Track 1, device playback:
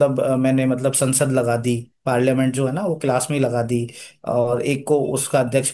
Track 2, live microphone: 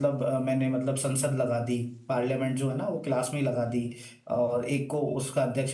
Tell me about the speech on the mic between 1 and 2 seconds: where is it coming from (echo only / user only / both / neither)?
echo only